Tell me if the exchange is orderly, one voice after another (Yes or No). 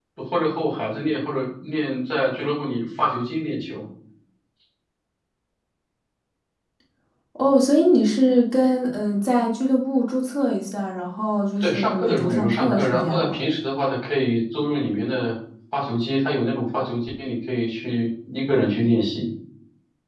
No